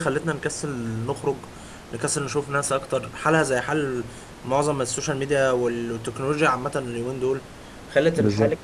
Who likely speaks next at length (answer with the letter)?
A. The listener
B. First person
B